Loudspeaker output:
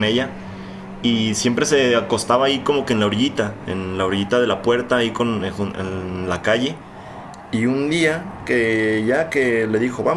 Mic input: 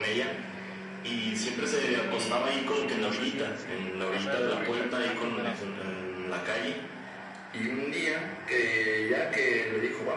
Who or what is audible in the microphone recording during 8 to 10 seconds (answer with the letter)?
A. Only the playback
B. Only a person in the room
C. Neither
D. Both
A